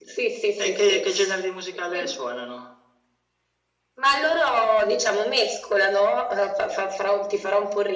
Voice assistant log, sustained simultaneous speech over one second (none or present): none